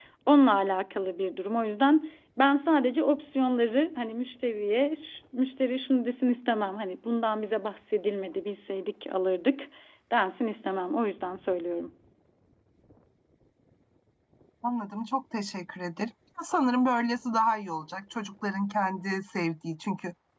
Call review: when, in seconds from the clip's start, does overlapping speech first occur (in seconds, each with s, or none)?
none